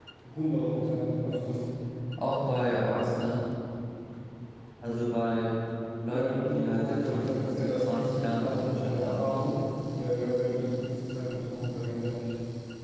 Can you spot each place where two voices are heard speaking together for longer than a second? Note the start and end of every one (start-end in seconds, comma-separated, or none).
6.0-9.6